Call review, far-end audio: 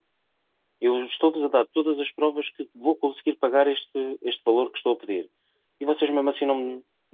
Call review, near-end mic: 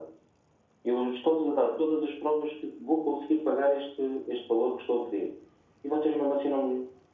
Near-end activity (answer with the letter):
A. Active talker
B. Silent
B